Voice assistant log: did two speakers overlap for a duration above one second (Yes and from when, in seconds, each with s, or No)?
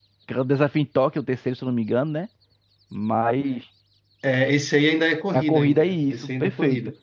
Yes, from 5.3 s